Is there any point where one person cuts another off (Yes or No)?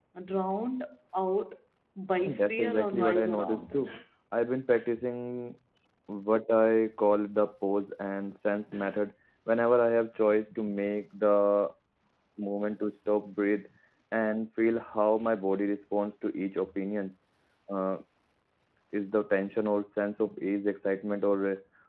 Yes